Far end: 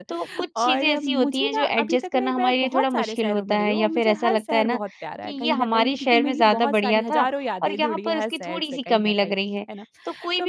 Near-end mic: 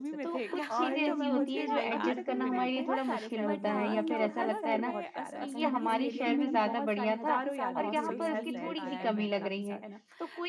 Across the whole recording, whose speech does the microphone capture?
both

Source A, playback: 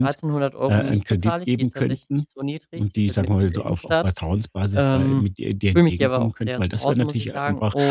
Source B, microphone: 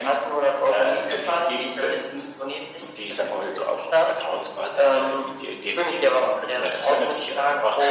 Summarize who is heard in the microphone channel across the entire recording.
echo only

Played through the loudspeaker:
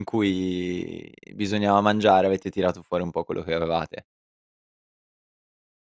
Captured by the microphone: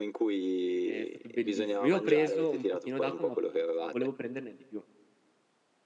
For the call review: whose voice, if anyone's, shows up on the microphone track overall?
both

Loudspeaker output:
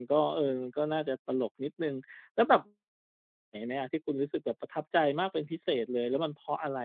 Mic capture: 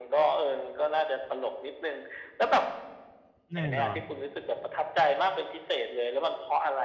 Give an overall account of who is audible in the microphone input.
both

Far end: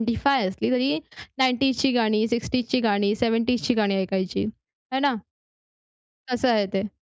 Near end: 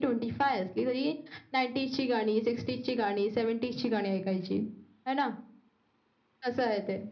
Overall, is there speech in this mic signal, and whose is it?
echo only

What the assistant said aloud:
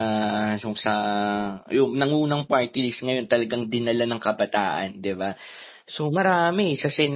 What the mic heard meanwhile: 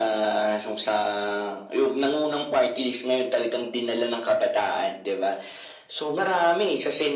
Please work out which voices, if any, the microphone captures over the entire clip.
echo only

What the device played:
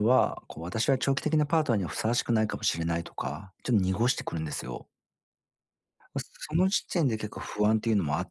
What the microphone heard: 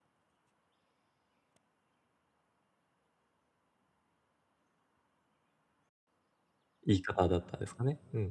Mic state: user only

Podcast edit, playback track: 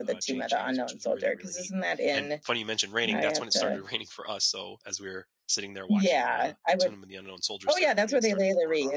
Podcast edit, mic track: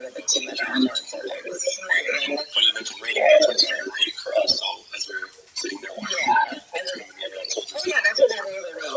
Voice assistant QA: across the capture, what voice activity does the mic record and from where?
echo only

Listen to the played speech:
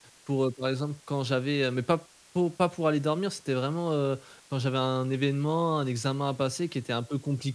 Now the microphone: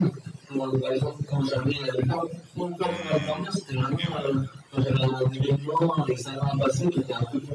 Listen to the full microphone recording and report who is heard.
both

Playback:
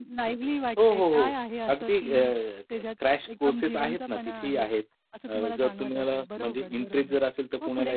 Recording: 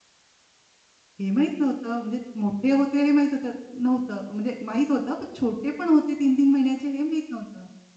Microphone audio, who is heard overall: user only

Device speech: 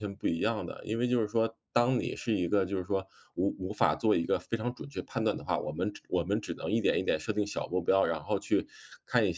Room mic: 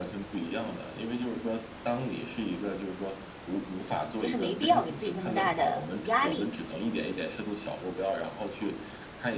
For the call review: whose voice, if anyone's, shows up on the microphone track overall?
both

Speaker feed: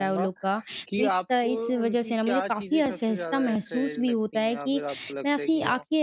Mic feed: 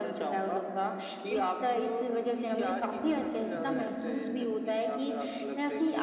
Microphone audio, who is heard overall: both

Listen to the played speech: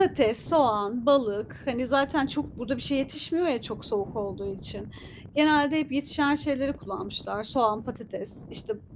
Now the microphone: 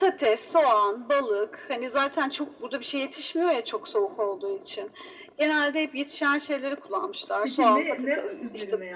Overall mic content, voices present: both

